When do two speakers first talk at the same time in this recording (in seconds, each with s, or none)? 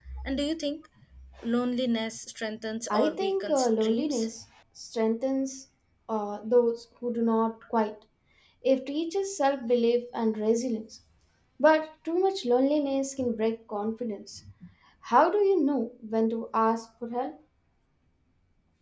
2.9 s